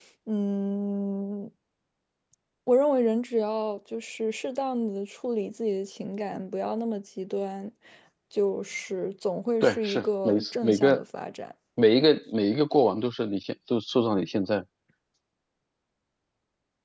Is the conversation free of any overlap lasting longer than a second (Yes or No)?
No